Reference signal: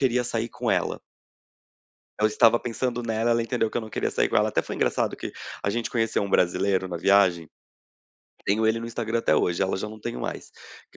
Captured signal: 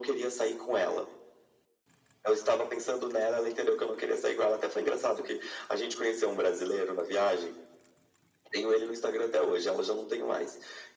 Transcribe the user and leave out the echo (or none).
none